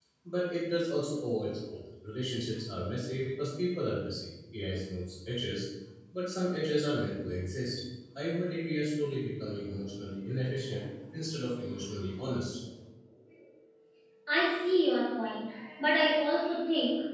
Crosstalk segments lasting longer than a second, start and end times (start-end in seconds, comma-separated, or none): none